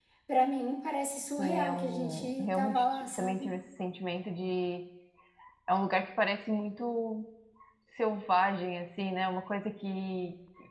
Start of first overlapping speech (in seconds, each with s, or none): 1.4 s